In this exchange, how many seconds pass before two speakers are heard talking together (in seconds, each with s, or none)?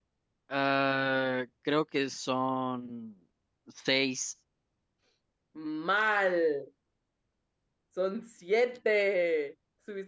none